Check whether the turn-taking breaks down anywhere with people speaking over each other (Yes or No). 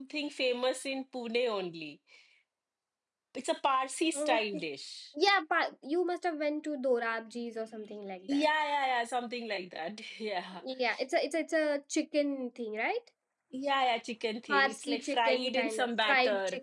Yes